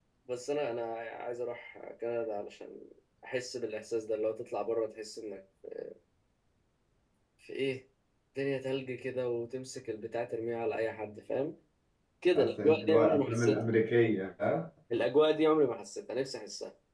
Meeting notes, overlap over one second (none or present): present